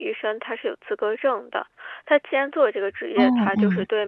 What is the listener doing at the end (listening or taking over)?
listening